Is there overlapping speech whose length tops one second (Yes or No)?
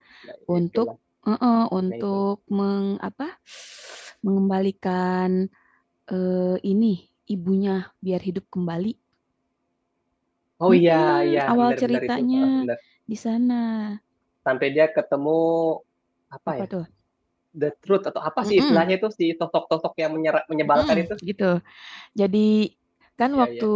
Yes